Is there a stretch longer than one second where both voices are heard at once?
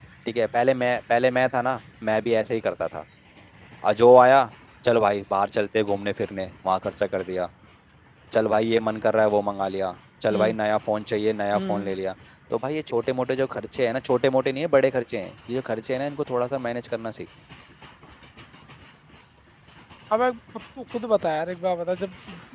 No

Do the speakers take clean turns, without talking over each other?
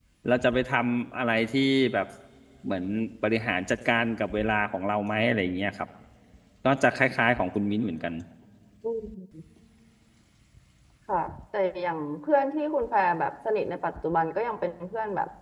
Yes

